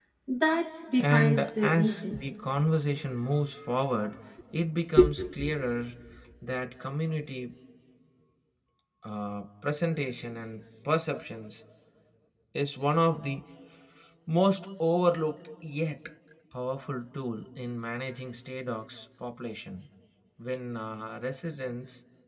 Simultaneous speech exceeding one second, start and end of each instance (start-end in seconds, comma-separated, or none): 1.0-2.2